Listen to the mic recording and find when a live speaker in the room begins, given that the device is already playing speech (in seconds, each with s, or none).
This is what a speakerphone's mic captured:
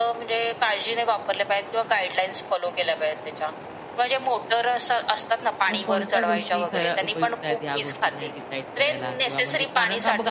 5.7 s